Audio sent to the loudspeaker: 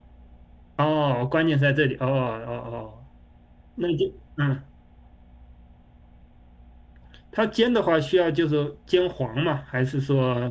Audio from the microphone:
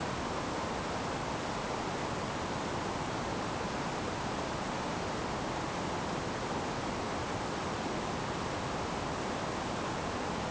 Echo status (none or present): none